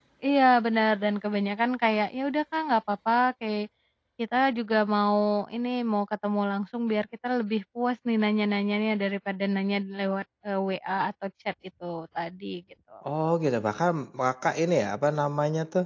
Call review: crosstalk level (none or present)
none